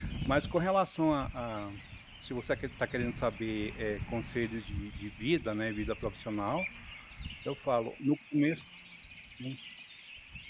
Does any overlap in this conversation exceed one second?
No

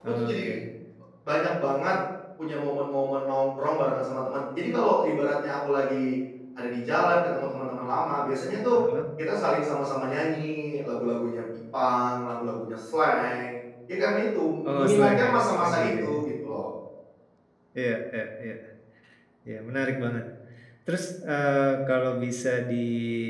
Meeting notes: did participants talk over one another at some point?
Yes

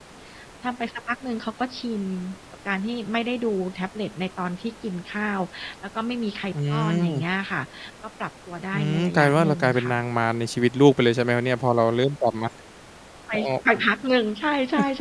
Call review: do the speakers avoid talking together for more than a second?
No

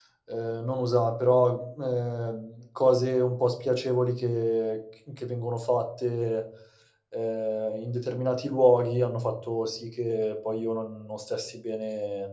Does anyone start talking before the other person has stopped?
No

